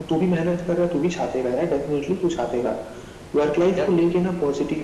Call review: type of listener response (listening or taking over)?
listening